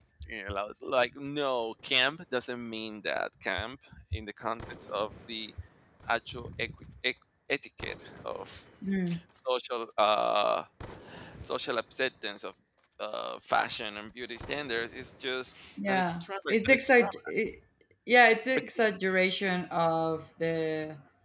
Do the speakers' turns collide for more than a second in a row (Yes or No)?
Yes